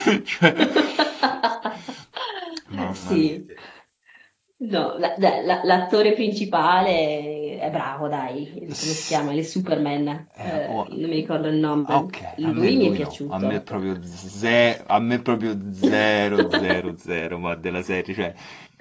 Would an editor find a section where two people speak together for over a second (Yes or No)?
Yes